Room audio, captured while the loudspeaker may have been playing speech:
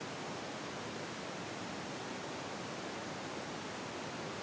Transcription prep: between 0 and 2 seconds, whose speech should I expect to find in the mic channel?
neither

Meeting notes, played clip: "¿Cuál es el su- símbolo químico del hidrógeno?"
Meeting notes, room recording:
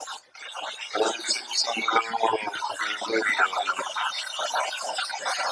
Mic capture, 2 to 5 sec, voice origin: echo only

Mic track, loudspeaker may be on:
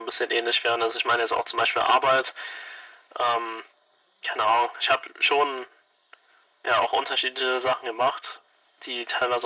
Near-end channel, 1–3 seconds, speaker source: echo only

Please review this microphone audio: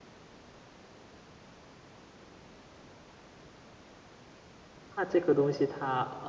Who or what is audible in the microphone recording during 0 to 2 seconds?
neither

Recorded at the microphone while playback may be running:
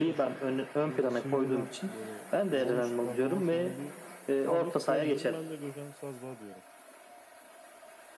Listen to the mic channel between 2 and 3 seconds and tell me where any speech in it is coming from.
both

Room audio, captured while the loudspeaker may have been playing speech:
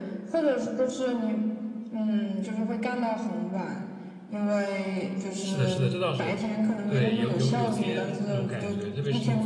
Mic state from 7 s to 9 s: both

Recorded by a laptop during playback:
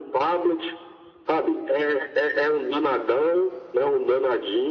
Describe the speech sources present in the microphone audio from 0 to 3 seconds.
echo only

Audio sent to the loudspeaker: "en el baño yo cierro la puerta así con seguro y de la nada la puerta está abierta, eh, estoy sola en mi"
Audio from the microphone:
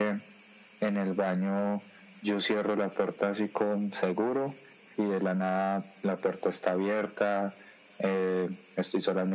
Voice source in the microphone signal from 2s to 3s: echo only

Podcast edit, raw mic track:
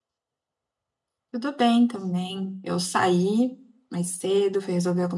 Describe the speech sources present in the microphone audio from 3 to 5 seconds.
echo only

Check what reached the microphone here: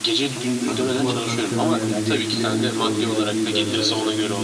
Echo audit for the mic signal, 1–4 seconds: both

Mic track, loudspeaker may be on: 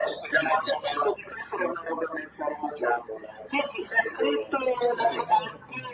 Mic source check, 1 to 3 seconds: echo only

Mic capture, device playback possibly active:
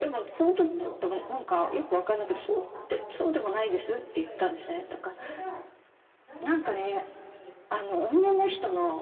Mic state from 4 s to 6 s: both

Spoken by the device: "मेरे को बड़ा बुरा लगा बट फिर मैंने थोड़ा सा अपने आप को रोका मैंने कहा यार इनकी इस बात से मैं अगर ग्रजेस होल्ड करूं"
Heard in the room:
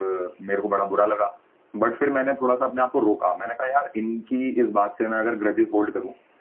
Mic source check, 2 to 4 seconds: echo only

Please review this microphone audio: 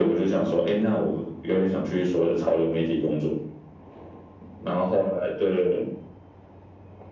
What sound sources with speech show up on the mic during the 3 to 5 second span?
echo only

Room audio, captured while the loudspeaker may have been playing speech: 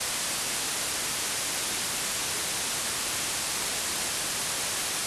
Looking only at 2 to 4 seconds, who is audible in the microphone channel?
neither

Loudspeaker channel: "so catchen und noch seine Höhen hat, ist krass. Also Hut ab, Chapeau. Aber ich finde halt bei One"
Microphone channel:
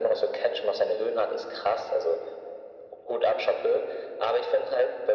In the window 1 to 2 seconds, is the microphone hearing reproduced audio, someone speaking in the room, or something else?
echo only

